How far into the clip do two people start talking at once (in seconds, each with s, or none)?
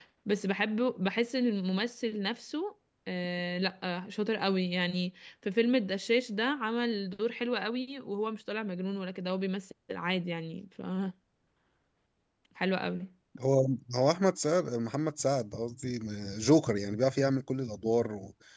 none